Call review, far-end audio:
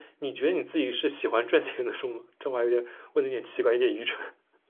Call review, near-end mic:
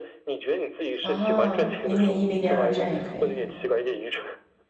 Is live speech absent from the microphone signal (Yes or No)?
No